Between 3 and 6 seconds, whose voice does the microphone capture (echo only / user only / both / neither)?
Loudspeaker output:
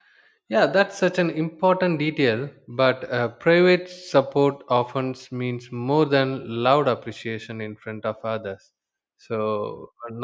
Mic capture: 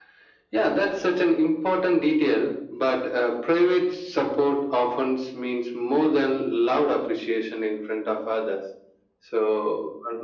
echo only